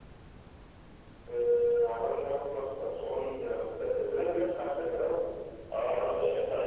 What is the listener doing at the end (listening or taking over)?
taking over